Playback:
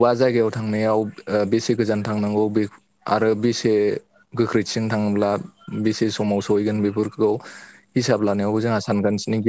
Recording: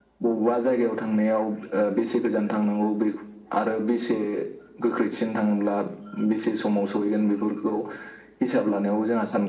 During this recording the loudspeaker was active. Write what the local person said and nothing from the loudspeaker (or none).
none